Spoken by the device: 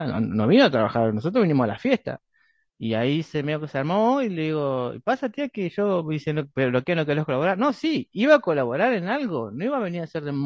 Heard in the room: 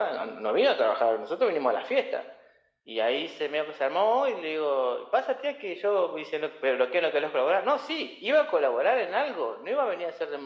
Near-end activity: none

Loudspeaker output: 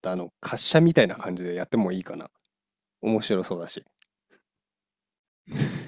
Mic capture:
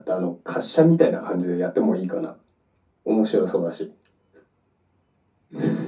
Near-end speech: none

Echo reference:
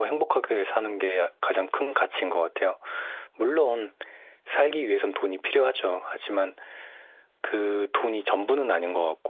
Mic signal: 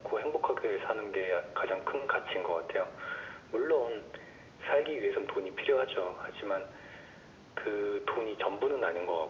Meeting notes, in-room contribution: none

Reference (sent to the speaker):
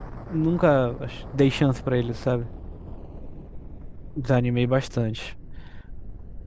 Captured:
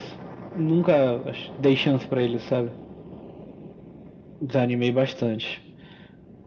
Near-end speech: none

